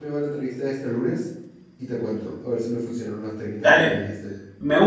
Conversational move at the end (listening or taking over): taking over